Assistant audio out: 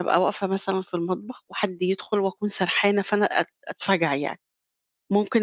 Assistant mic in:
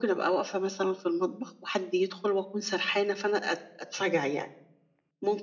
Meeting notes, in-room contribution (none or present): none